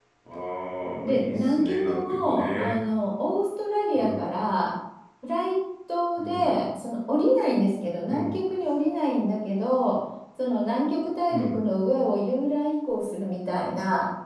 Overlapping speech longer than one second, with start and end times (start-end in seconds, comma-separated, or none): 1.0-2.8